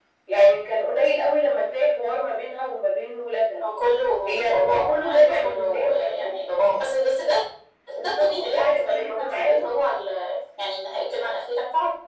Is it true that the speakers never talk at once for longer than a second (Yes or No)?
No